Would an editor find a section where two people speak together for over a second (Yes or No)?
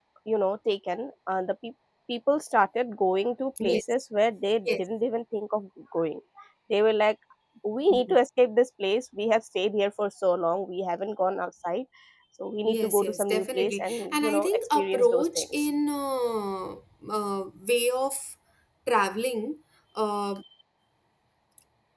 Yes